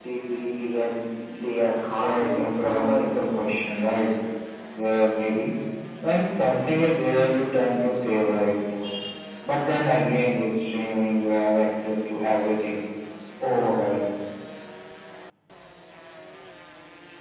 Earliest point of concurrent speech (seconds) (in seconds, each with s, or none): 1.9 s